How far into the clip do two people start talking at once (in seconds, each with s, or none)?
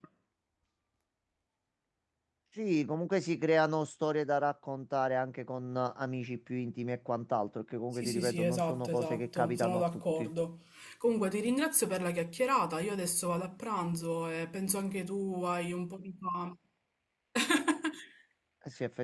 8.0 s